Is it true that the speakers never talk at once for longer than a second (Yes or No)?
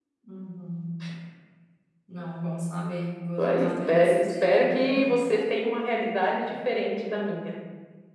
No